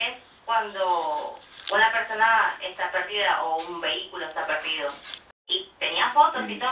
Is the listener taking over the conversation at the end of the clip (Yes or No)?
No